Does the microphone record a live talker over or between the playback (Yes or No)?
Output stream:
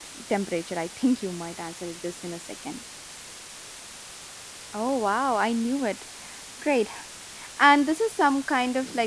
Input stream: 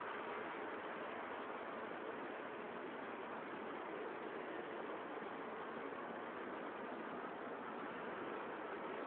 No